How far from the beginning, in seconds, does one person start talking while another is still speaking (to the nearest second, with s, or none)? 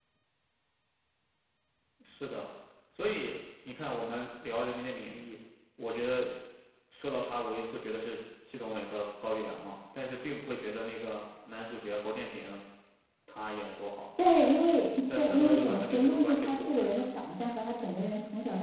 15 s